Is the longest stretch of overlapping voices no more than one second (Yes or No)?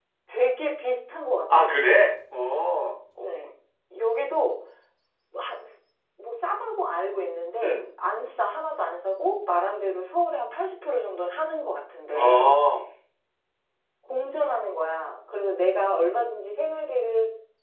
Yes